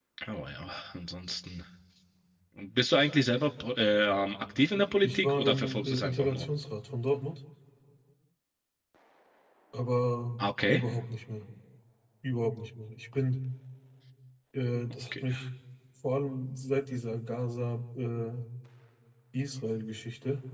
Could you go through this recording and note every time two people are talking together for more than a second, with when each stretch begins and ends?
5.0-6.5

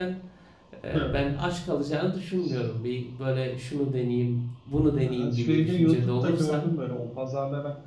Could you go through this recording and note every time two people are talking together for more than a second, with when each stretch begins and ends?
5.0-6.7

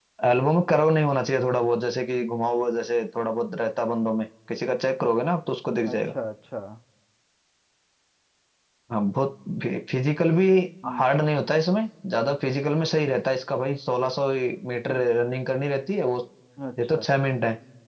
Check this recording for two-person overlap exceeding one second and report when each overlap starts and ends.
none

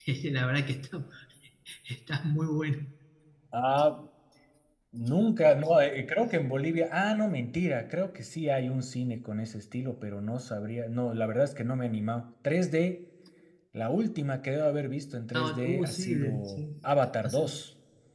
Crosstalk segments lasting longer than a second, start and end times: 15.3-16.6

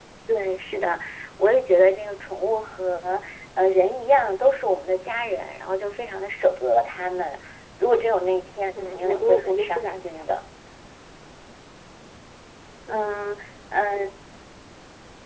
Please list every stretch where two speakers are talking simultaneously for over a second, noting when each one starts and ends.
8.8-10.2

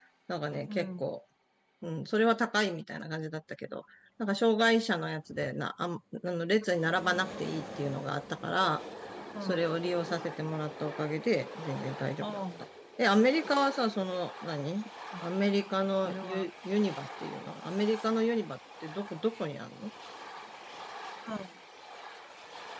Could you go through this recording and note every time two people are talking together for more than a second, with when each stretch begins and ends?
none

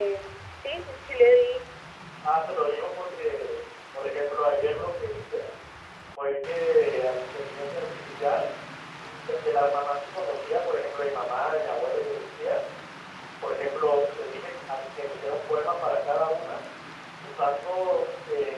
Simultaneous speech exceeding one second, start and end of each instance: none

